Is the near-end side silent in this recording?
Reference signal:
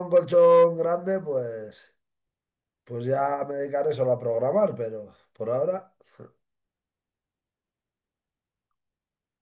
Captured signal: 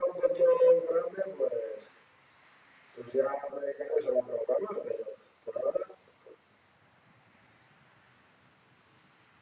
Yes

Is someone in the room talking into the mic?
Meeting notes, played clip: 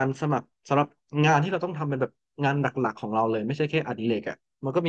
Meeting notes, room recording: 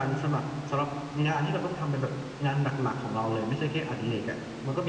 No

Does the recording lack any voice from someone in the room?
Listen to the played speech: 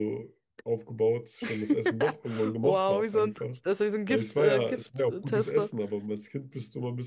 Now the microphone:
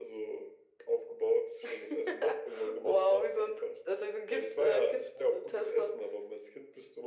Yes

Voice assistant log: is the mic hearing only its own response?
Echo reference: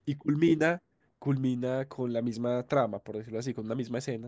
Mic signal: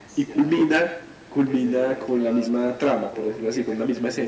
No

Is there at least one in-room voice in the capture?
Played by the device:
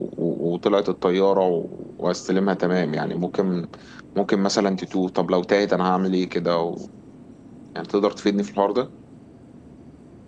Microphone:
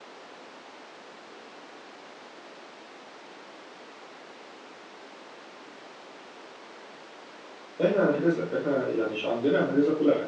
Yes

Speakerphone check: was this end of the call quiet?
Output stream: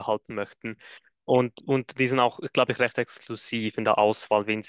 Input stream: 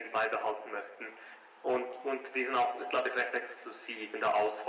Yes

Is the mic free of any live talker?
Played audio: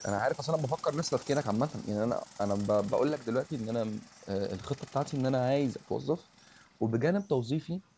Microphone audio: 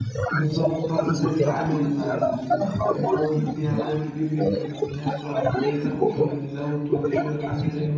No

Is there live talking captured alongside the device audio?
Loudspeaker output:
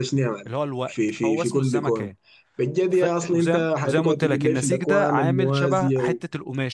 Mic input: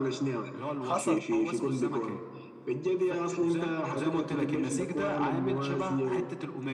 Yes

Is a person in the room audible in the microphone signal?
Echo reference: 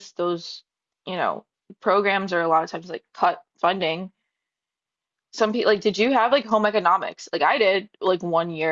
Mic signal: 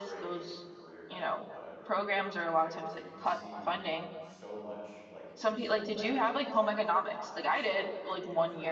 Yes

